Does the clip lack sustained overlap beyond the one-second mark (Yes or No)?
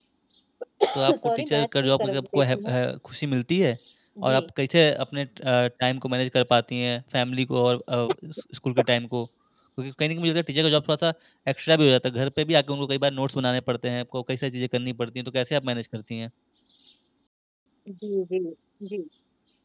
No